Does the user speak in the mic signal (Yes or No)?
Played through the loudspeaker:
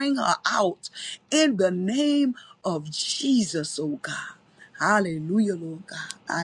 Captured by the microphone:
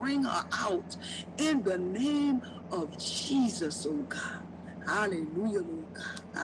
No